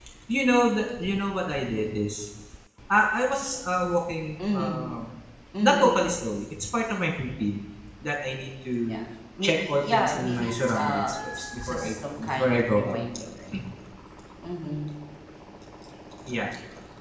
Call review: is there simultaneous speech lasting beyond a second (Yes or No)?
Yes